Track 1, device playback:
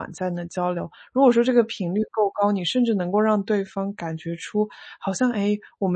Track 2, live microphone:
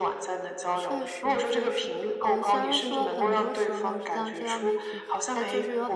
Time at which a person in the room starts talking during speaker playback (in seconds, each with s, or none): 0.7 s